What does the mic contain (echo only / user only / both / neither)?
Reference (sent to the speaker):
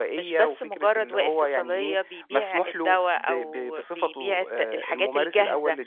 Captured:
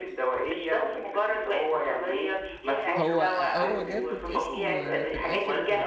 both